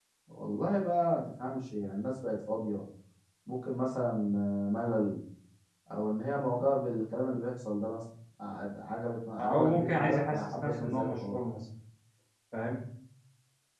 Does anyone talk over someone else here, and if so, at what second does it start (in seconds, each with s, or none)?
9.4 s